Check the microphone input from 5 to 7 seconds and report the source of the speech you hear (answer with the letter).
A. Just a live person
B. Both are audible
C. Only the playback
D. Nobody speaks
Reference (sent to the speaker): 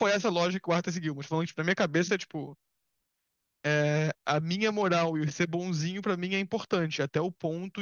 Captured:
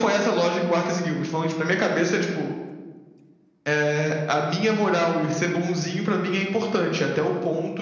C